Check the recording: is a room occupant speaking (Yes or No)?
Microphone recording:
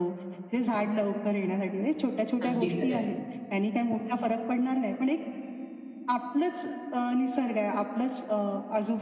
Yes